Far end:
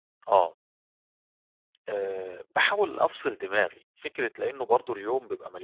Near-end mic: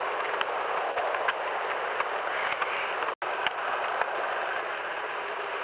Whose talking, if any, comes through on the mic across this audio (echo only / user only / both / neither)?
neither